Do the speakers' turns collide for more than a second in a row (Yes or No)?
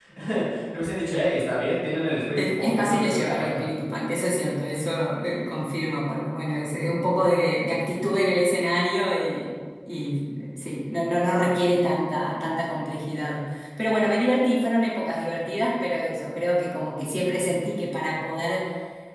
Yes